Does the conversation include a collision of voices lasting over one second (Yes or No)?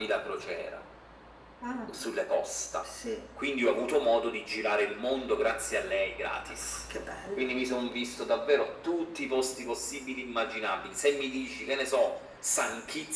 No